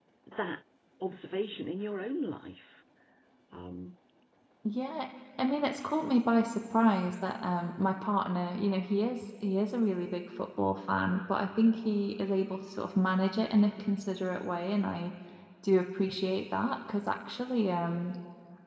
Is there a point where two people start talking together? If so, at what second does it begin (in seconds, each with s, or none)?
none